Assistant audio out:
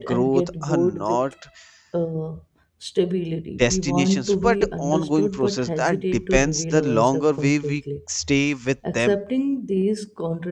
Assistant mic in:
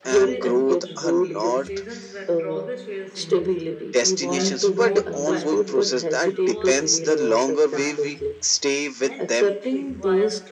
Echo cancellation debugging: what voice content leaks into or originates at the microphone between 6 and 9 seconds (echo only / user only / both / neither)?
both